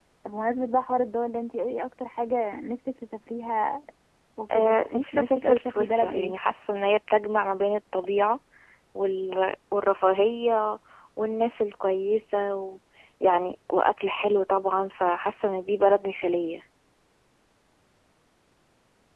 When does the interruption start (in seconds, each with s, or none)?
4.5 s